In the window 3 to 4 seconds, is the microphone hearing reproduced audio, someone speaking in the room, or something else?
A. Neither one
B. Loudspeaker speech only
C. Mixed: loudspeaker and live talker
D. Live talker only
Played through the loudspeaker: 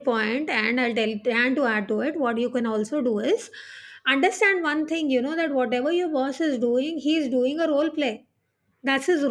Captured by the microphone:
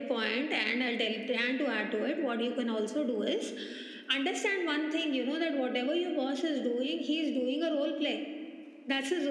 B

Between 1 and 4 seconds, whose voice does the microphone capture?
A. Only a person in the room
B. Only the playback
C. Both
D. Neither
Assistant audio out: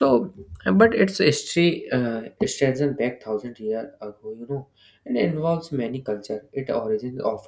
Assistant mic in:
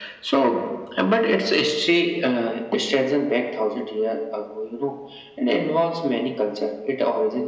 B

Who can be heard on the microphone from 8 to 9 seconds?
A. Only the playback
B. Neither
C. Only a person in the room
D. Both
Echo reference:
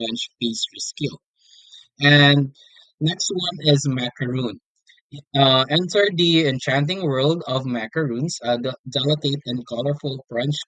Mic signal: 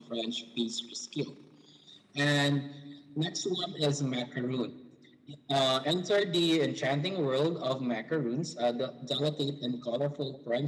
A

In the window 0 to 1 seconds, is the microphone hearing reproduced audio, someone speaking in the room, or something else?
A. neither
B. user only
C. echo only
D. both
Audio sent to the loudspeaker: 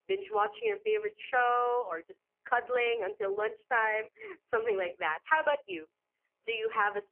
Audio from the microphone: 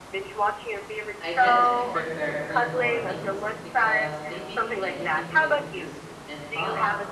C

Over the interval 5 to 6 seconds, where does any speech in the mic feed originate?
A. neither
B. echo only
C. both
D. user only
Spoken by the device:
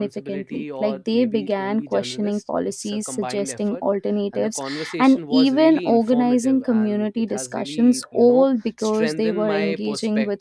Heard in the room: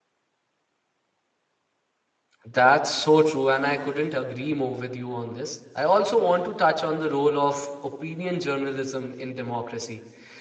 D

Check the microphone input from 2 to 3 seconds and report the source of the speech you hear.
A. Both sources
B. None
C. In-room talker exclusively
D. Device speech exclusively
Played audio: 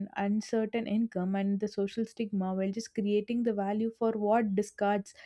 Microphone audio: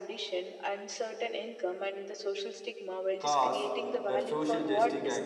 D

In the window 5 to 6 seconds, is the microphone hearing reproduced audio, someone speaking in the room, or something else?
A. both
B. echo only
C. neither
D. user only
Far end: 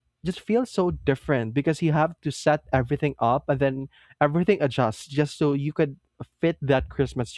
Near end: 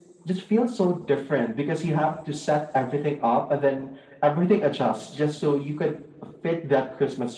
B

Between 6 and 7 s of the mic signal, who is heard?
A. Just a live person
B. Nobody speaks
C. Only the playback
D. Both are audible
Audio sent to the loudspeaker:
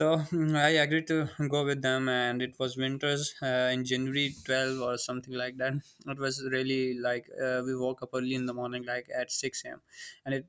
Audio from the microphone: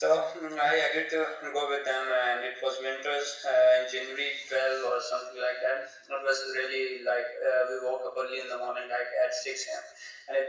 C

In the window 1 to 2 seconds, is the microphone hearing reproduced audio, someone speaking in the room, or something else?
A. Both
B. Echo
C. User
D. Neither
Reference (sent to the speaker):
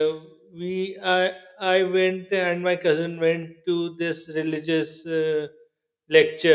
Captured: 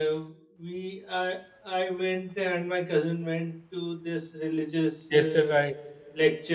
B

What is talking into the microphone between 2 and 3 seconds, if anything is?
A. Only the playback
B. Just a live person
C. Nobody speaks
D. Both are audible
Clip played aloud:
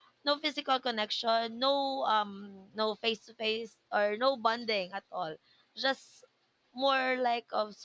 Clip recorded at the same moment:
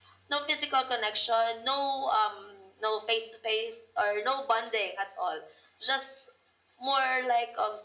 A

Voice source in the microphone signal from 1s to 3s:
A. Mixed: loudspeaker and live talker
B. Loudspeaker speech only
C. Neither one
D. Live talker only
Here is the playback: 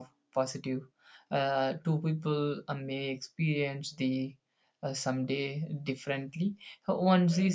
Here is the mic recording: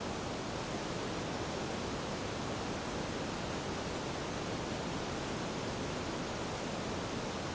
C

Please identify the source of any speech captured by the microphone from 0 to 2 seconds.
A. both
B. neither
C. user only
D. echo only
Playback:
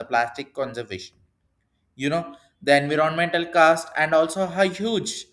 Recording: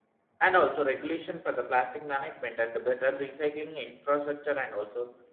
C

